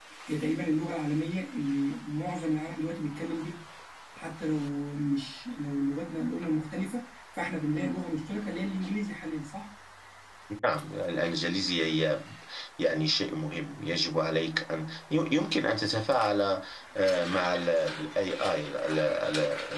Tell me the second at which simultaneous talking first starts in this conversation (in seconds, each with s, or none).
none